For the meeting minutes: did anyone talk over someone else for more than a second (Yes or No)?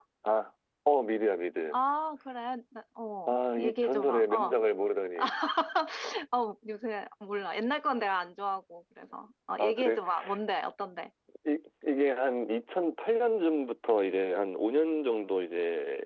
Yes